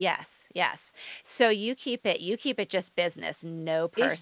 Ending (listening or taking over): taking over